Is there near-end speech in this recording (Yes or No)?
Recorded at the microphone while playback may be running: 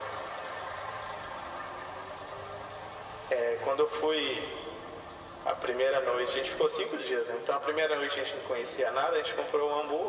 No